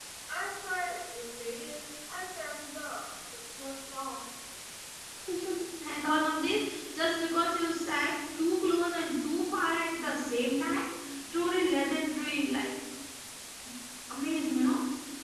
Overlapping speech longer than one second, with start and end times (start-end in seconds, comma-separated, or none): none